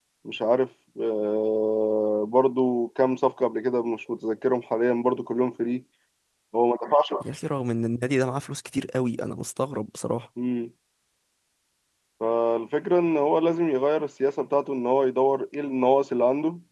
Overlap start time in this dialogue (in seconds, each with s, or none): none